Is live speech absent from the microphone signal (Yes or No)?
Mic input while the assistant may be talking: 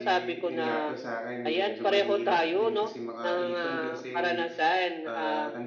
No